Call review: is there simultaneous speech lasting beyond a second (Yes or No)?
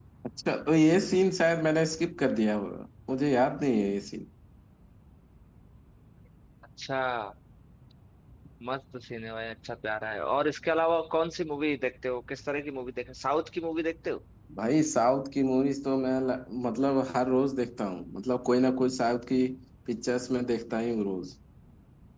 No